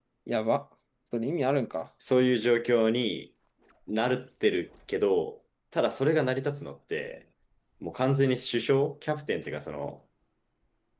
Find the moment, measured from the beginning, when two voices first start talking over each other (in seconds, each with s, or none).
none